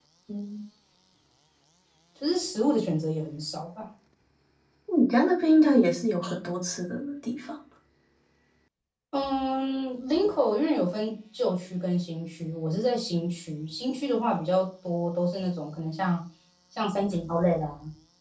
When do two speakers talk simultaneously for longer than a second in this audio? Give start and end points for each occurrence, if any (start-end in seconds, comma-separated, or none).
none